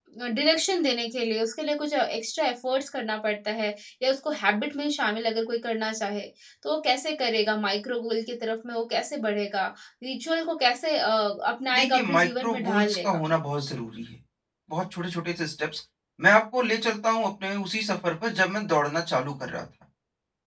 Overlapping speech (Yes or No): Yes